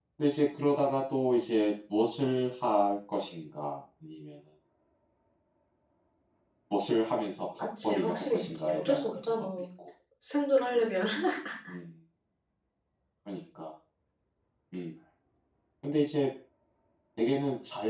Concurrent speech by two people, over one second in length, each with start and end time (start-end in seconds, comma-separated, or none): 7.6-9.4